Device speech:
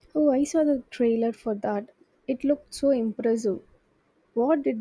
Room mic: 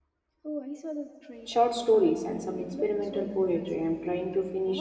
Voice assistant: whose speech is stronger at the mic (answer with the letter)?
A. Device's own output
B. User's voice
B